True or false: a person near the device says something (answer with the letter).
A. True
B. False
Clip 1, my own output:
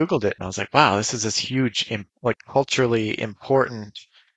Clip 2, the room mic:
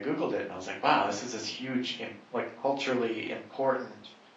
B